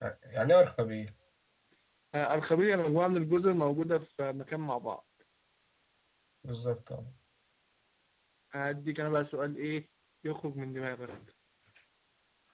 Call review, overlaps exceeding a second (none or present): none